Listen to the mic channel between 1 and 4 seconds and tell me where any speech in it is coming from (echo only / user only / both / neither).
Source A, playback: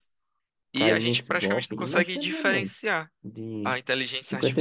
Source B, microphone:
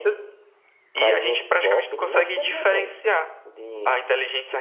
echo only